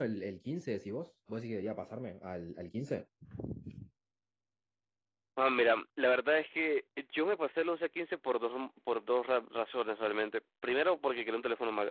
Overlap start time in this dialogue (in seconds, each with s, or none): none